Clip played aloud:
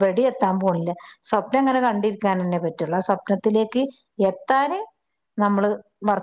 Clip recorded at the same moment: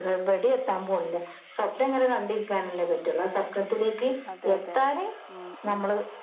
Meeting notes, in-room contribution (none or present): present